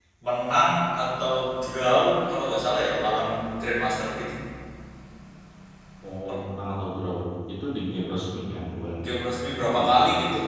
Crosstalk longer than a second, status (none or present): none